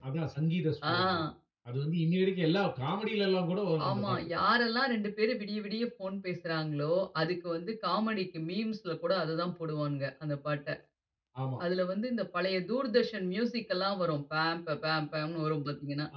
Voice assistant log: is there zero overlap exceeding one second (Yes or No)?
Yes